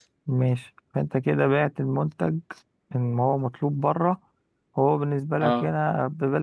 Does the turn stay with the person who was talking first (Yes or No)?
Yes